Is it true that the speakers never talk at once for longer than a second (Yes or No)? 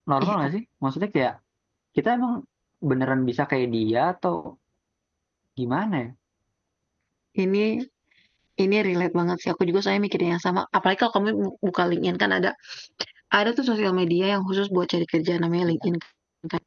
Yes